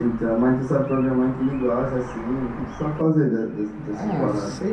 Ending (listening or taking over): taking over